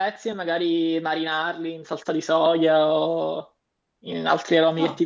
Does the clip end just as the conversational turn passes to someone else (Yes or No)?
No